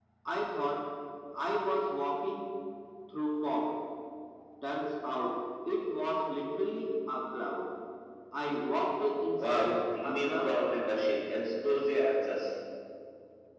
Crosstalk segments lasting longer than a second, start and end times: 9.4-10.6

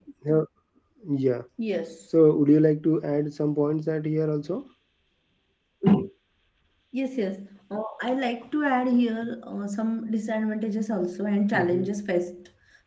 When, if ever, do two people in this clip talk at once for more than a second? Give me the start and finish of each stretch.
none

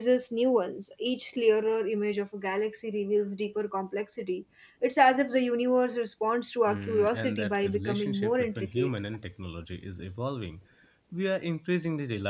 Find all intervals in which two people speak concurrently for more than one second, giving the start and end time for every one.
6.7-8.9

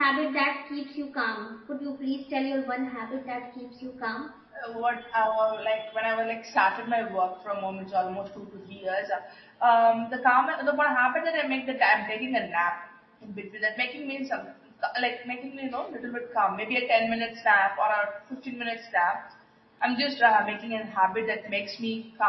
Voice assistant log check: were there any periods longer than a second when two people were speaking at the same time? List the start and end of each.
none

